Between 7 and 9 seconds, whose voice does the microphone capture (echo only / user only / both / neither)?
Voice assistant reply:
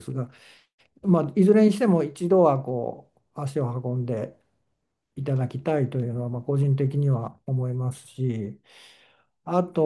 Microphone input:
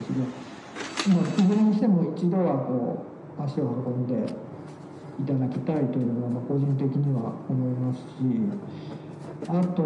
echo only